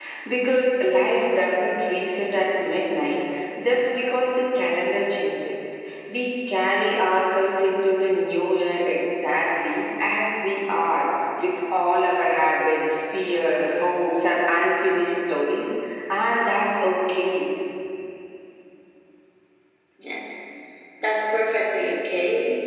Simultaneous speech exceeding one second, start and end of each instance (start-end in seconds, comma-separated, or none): none